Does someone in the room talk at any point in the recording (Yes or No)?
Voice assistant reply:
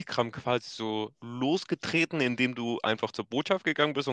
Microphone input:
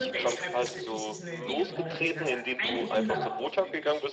Yes